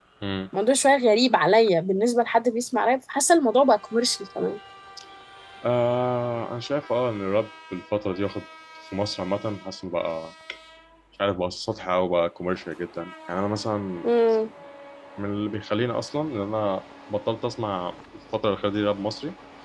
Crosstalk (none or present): none